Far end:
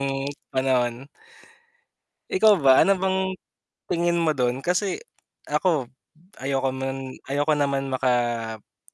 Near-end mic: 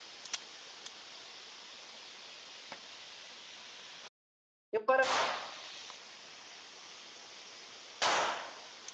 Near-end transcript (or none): 'Yung parang